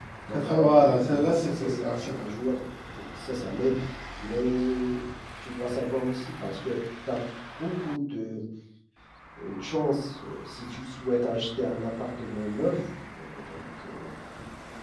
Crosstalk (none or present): present